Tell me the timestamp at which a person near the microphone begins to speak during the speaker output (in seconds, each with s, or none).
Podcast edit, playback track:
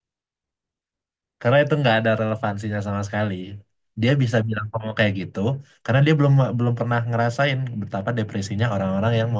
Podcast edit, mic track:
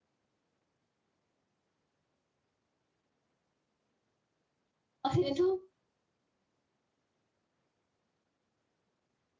5.0 s